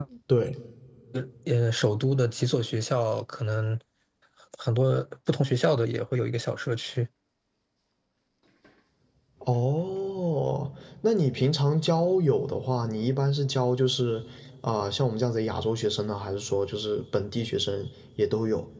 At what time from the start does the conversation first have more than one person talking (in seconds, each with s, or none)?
none